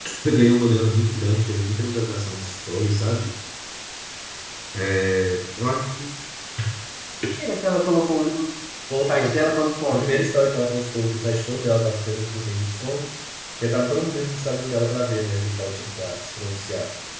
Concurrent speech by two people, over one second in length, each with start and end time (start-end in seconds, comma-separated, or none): none